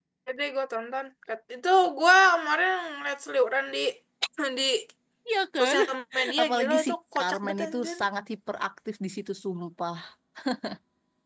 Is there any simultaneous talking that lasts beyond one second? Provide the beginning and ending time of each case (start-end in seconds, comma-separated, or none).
6.4-8.0